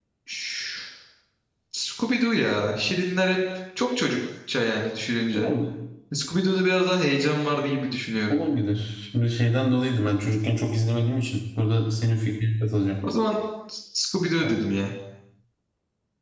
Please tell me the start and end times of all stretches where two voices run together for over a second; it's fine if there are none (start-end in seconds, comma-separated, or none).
none